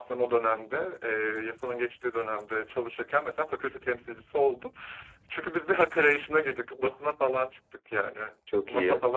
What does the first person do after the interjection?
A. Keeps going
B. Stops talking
A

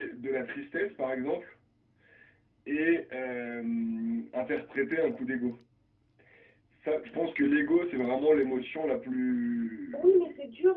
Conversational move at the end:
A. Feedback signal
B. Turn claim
B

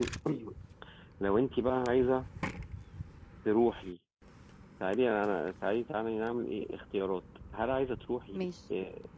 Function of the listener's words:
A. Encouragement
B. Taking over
A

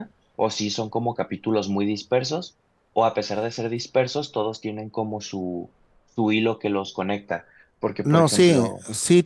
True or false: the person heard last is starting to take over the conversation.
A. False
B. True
B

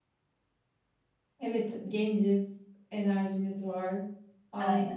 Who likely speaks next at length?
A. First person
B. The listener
A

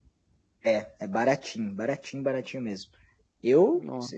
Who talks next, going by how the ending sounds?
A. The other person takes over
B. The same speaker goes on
B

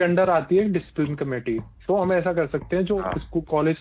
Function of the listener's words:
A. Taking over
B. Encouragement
B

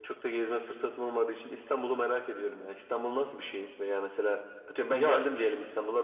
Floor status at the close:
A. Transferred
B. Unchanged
B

